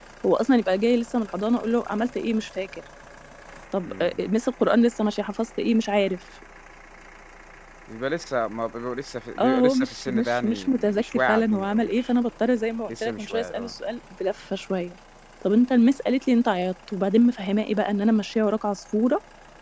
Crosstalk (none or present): present